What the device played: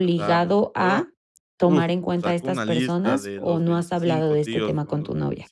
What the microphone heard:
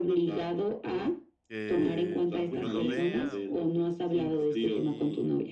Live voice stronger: No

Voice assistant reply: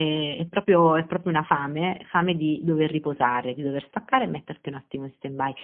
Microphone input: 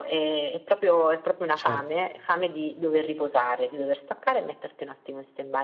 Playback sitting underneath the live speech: No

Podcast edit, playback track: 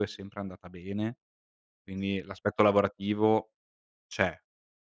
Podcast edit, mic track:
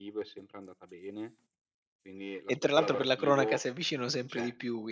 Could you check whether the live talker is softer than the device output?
No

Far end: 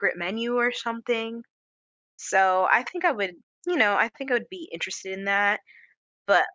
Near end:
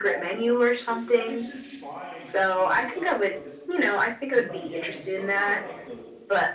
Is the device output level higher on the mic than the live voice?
Yes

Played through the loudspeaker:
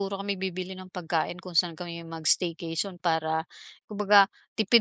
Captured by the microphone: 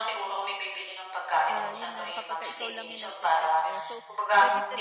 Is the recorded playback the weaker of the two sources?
No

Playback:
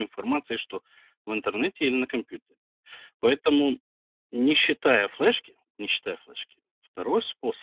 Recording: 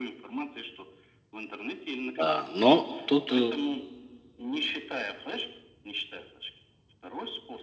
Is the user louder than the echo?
Yes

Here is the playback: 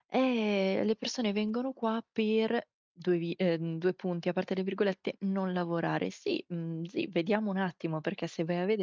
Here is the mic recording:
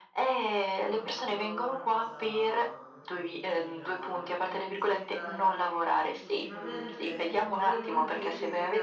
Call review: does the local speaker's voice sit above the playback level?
No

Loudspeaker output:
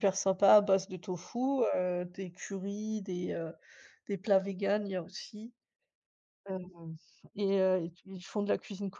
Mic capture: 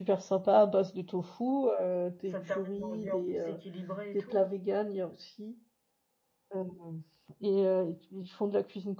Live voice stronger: No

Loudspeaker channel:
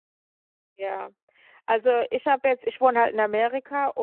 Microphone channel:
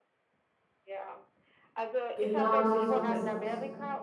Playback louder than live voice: No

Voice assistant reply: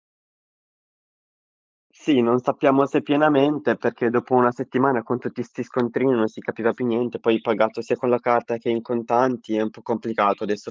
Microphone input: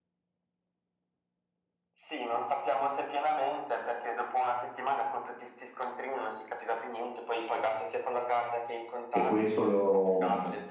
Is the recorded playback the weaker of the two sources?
Yes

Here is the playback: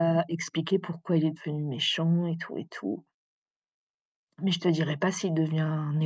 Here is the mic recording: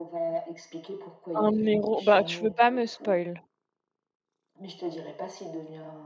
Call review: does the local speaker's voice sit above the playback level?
Yes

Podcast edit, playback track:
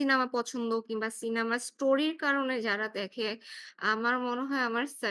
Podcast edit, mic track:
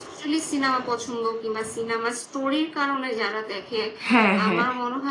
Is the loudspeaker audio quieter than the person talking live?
Yes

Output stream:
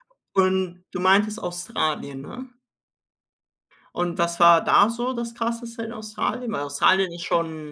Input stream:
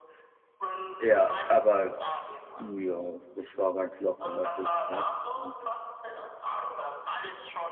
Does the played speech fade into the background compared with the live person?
Yes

